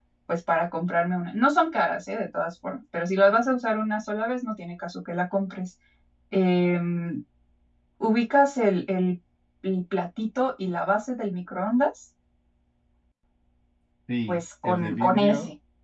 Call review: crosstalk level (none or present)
present